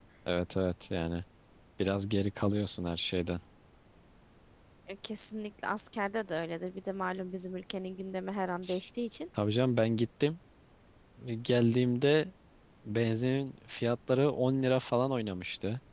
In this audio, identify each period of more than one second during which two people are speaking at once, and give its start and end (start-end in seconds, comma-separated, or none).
none